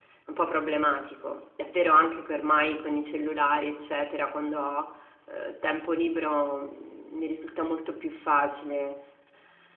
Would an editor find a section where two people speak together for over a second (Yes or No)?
No